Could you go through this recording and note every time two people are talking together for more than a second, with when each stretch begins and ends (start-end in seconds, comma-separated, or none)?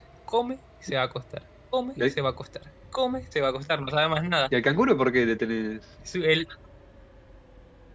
none